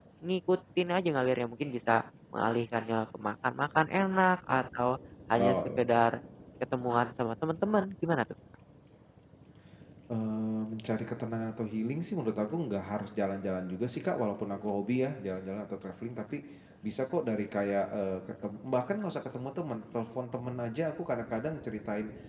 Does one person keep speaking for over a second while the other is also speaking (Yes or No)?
No